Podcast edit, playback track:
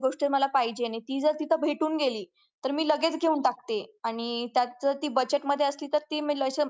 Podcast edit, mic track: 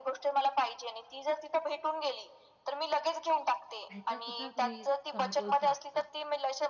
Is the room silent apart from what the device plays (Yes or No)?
No